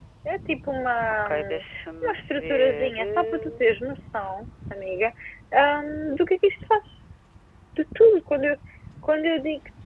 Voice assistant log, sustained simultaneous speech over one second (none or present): present